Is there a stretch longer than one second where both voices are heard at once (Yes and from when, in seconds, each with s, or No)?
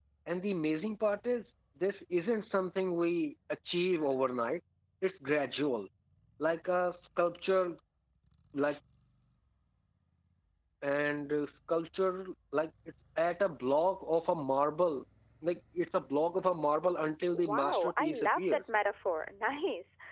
Yes, from 17.3 s